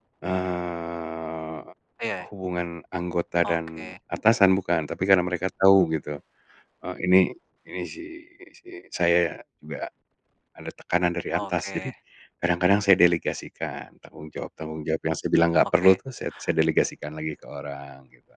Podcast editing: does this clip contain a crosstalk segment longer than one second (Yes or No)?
No